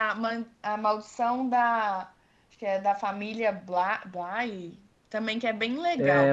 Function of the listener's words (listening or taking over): taking over